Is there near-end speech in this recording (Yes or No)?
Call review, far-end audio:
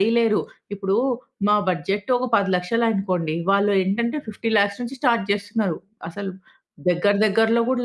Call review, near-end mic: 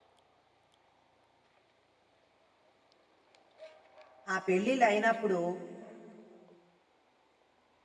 Yes